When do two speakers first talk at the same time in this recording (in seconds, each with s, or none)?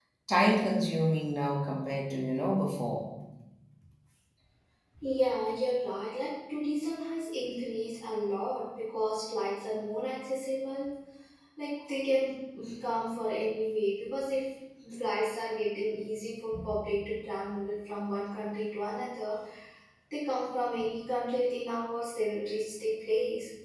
none